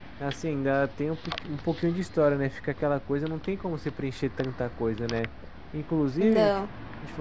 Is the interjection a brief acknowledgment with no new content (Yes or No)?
Yes